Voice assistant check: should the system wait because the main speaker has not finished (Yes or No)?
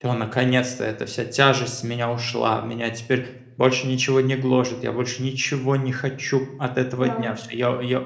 Yes